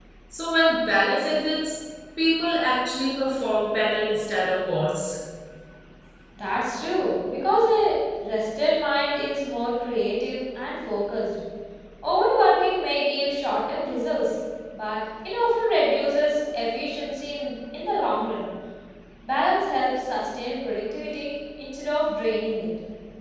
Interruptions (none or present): none